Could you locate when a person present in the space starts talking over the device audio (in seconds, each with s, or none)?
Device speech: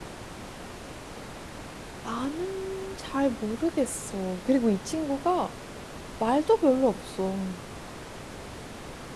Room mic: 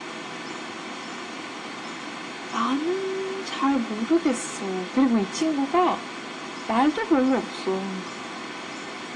none